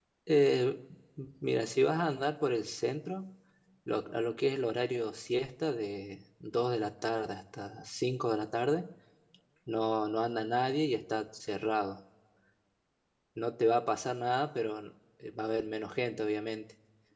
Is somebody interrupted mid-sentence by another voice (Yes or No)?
No